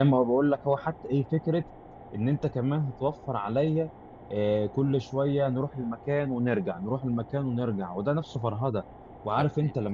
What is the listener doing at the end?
listening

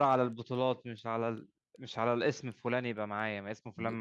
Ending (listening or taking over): listening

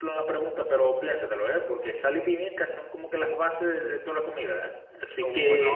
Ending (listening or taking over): taking over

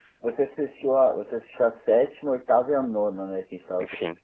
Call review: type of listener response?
taking over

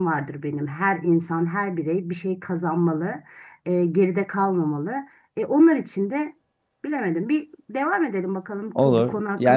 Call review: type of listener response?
taking over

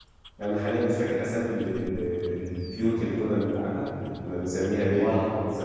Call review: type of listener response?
listening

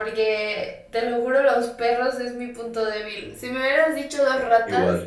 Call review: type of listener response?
listening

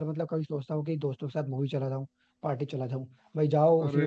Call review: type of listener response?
listening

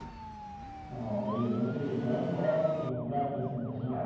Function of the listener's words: taking over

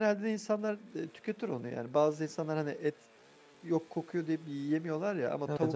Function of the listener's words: listening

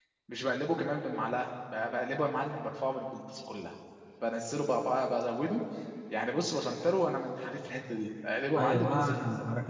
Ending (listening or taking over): taking over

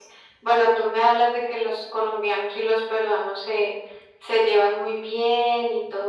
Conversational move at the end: listening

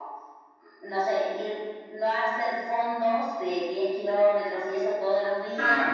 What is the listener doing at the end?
listening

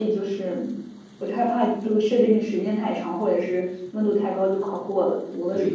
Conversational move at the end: taking over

